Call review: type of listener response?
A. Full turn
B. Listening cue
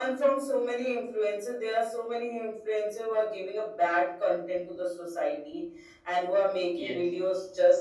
B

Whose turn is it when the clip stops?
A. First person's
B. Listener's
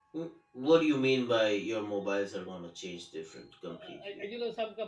B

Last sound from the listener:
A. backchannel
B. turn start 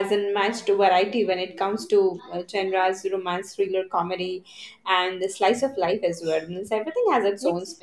B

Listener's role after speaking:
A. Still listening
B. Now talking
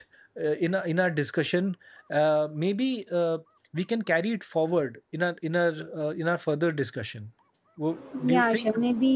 B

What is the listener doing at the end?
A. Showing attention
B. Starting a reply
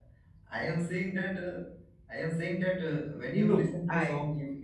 A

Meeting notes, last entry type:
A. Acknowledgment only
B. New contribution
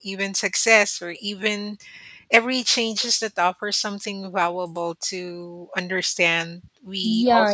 B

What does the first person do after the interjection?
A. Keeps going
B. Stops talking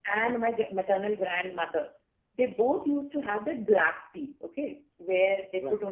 A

